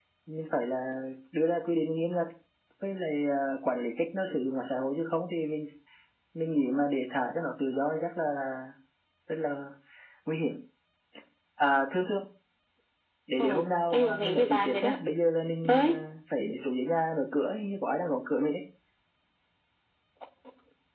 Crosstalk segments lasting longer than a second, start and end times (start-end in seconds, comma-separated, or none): 13.4-15.0